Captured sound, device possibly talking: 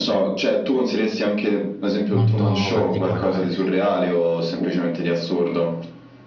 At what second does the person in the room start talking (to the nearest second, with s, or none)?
2 s